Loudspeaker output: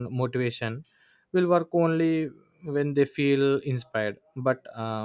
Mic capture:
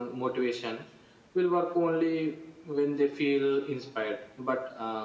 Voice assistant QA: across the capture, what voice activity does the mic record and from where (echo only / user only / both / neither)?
echo only